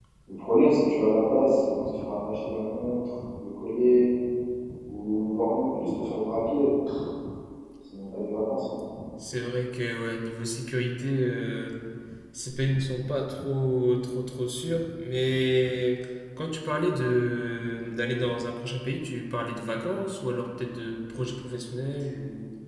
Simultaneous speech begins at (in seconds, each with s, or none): none